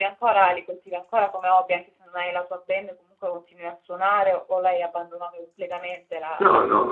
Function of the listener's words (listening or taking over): taking over